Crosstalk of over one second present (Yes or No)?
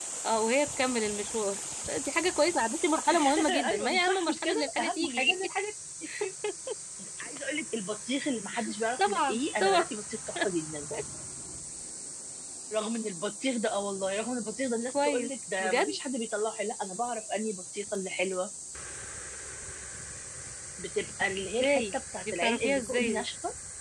Yes